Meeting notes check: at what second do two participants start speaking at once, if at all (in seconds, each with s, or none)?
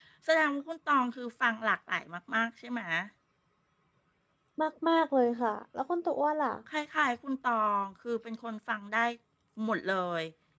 none